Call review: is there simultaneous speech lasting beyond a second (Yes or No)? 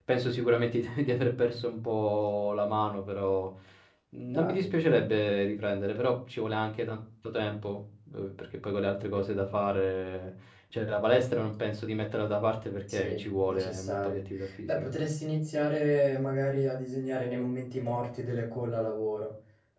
Yes